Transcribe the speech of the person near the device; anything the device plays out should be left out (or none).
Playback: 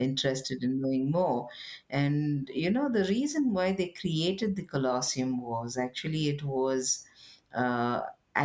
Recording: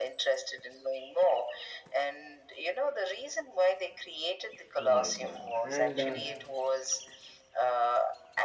Oh my God. And uh,